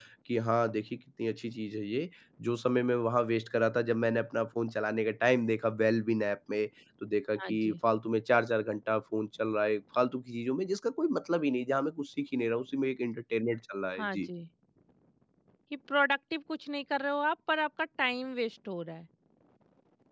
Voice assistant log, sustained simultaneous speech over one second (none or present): none